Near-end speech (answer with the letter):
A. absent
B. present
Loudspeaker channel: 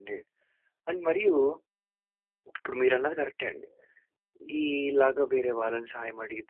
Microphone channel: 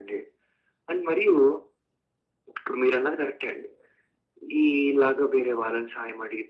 A